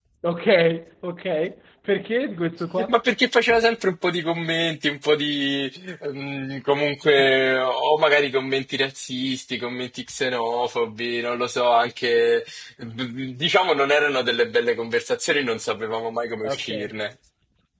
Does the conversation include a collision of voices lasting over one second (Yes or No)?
No